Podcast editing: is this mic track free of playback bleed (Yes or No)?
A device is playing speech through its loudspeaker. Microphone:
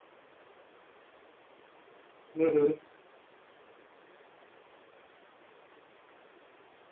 Yes